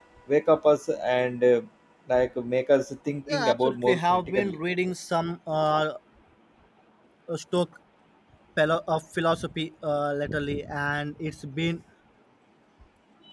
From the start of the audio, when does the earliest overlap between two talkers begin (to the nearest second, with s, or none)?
3 s